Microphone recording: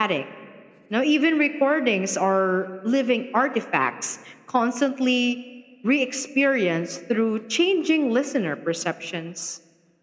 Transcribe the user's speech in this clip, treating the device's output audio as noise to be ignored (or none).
none